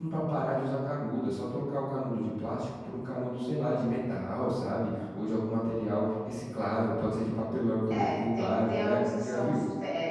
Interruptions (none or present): present